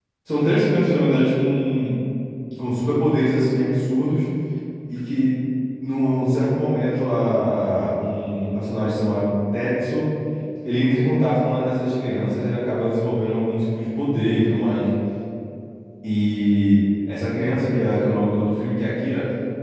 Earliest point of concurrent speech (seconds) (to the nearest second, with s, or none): none